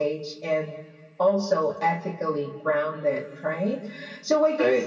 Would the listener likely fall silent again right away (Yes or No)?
Yes